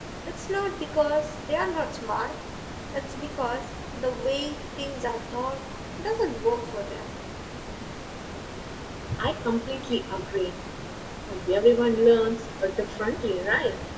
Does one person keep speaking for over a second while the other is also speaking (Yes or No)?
No